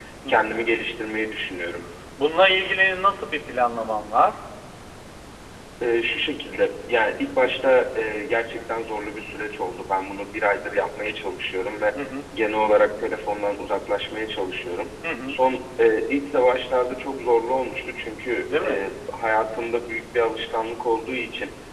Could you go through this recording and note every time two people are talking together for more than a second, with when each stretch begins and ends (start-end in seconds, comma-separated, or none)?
none